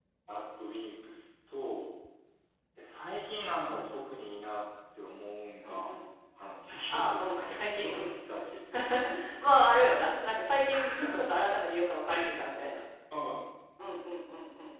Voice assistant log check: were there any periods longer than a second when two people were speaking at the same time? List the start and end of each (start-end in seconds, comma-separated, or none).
6.9-8.2